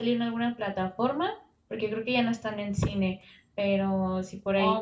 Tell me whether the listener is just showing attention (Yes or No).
No